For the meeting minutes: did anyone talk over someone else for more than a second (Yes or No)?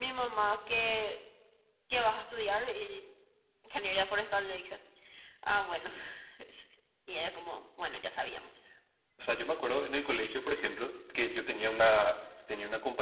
No